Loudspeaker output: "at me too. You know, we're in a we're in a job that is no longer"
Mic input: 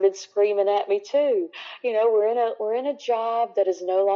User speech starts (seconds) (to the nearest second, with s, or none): none